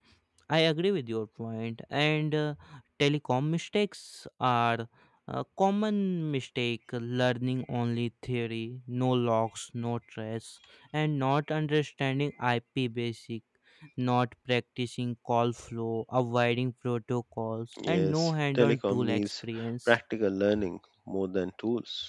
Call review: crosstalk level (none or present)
present